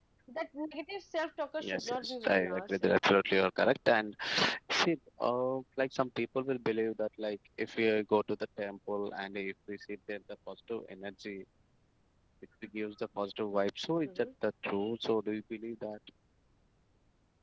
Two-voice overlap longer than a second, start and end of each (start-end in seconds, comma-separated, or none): 1.7-2.9